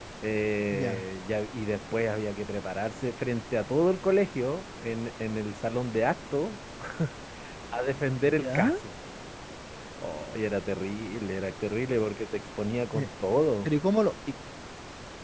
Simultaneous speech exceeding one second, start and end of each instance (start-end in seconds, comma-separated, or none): none